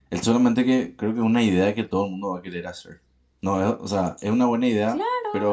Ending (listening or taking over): taking over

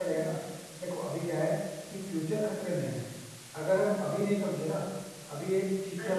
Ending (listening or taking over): listening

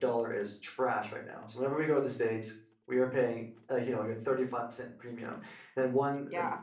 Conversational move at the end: listening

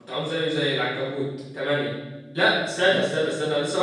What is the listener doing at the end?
listening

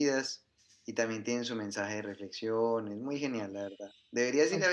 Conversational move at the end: listening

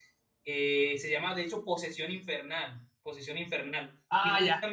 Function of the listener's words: taking over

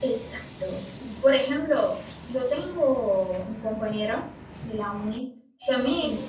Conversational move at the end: listening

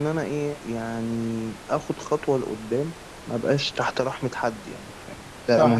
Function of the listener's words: taking over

